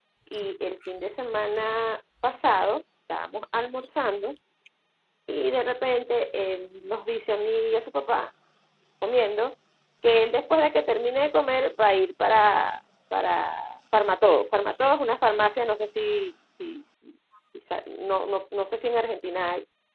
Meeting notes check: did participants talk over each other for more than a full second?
No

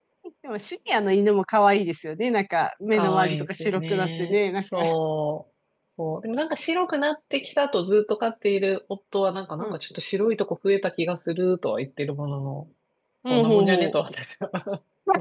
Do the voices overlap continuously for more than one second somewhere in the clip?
Yes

